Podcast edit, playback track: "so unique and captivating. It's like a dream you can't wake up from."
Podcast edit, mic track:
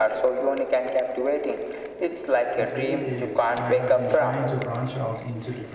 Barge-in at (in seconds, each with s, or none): 2.5 s